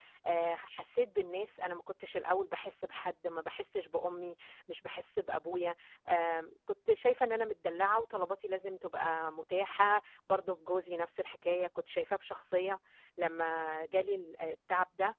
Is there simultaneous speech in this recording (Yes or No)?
No